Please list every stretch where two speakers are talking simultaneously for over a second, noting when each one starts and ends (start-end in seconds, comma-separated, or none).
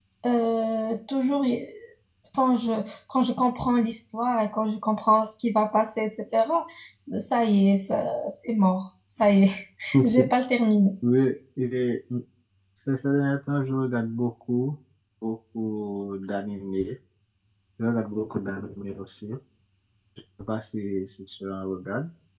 none